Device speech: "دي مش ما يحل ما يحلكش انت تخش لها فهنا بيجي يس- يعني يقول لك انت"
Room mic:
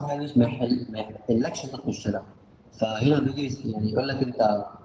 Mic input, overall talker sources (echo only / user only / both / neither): echo only